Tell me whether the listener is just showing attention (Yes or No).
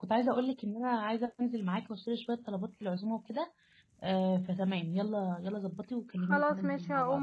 No